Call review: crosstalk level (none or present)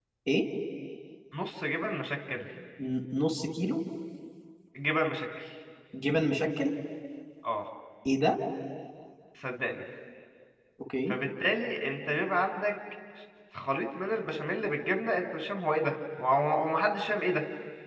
none